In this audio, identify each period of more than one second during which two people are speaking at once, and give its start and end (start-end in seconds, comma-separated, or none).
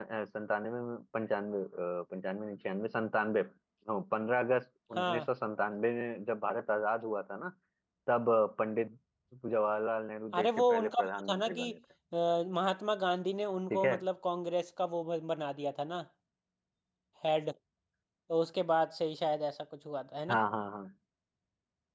10.4-11.7